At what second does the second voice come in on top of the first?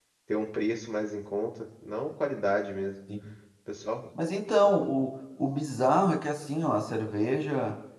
none

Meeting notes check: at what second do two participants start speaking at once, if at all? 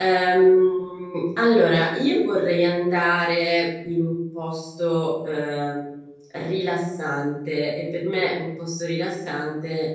none

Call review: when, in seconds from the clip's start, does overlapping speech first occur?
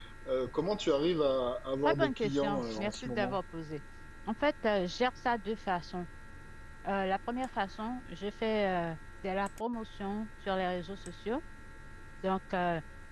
1.8 s

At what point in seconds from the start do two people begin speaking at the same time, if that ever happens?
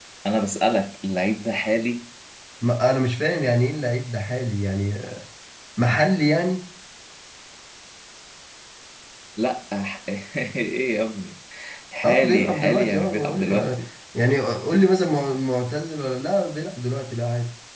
12.0 s

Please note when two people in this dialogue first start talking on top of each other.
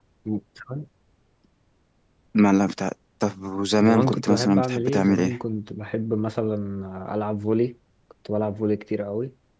3.8 s

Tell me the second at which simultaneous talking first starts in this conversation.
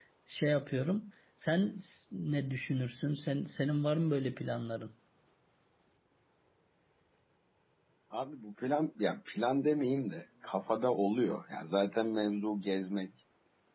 none

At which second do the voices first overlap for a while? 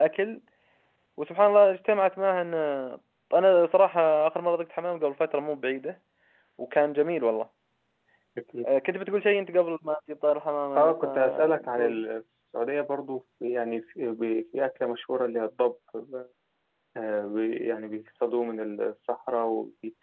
10.8 s

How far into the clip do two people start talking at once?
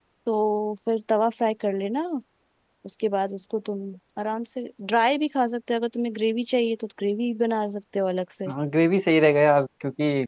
none

